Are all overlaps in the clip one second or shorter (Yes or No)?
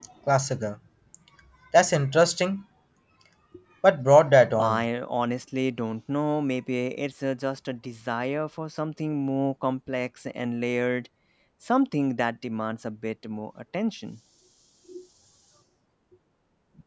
Yes